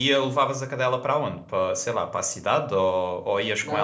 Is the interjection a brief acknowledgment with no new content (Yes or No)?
No